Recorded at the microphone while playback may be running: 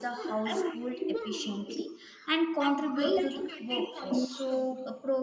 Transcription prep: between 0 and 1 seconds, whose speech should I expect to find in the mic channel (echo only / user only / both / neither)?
both